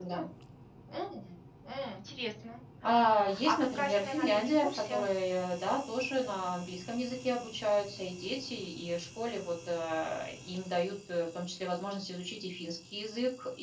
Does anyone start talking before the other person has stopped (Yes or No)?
Yes